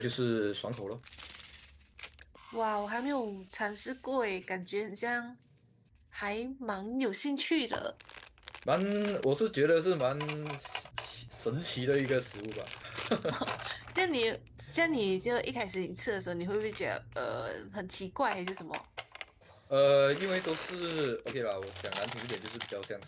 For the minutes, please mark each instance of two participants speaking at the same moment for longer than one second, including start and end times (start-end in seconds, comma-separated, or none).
none